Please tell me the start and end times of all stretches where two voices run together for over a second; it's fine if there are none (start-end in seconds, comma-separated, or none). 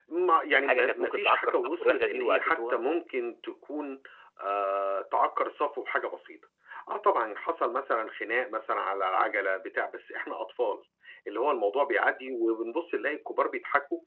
0.6-2.8